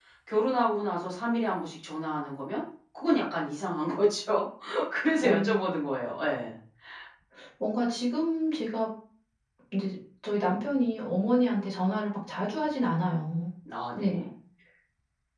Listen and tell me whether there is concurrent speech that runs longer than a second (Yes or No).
No